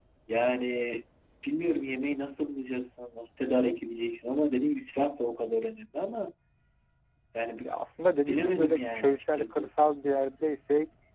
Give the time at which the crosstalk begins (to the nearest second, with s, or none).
8 s